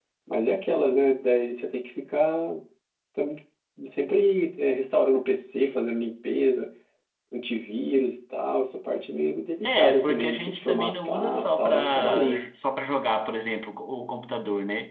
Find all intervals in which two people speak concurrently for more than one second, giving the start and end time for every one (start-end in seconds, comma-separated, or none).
9.6-12.4